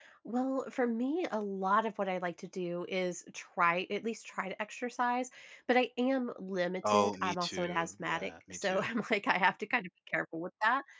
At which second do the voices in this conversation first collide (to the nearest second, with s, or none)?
7 s